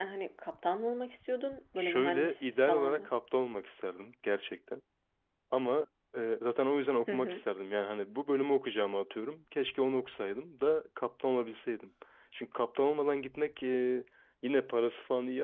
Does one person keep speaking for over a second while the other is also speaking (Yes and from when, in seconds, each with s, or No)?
Yes, from 1.8 s